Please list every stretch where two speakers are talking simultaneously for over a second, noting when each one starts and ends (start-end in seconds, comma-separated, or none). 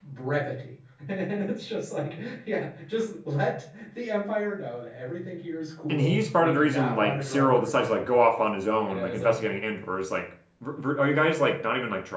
5.9-8.1